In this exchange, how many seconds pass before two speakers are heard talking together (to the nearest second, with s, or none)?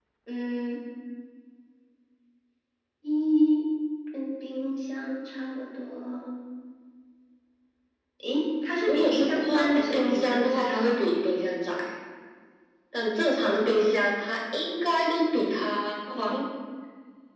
9 s